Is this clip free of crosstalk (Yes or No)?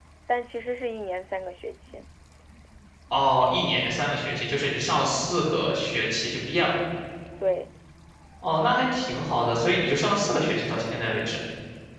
Yes